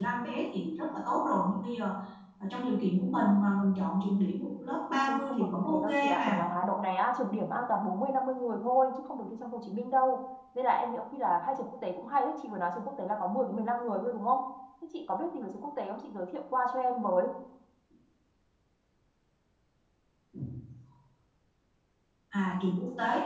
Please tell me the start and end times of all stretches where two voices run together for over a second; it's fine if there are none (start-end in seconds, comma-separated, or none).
5.1-6.5